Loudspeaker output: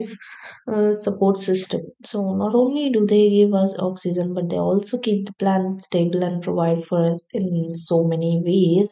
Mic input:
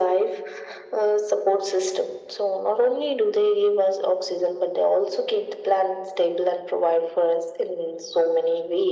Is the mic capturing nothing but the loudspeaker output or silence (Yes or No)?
Yes